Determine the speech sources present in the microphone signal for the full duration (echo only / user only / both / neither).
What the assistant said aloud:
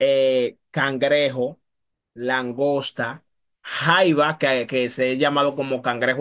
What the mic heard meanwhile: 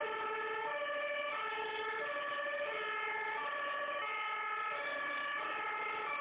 neither